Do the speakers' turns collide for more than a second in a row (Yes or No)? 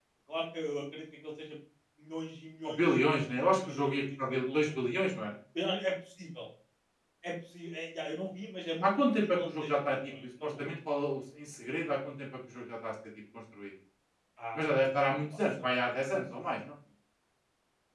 Yes